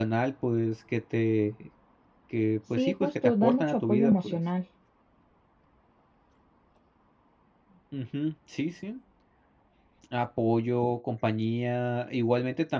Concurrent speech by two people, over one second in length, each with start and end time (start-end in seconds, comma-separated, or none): 2.7-4.4